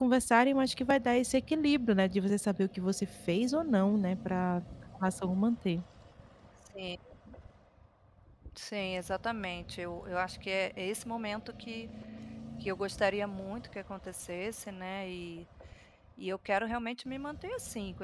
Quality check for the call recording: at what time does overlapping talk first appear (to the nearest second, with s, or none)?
none